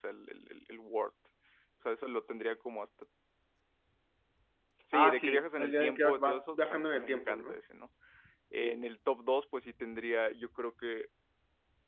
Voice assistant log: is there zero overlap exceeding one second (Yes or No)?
No